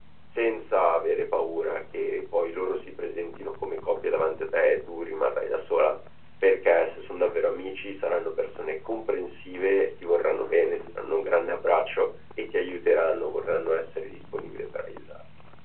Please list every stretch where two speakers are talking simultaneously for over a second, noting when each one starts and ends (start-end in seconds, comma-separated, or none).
none